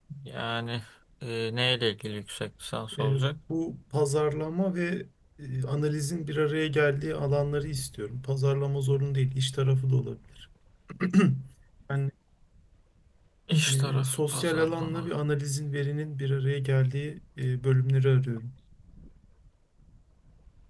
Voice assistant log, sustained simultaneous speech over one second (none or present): present